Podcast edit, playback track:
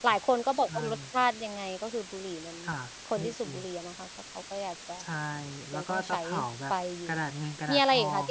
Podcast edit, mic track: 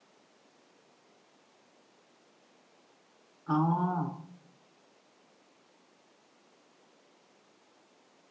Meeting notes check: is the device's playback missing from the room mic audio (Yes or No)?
Yes